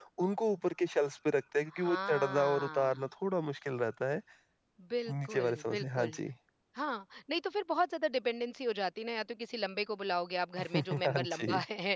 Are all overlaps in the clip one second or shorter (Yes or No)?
No